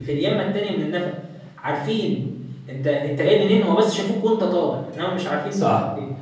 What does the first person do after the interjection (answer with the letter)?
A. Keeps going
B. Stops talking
B